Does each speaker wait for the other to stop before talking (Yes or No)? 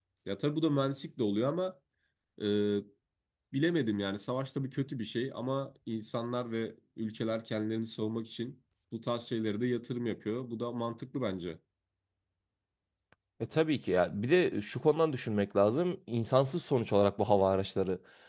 Yes